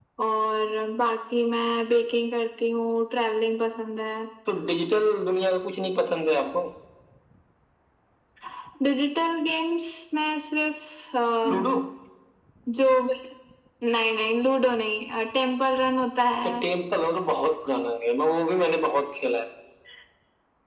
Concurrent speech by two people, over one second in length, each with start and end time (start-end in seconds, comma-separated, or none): none